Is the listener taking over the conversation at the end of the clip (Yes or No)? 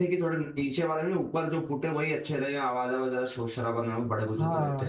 Yes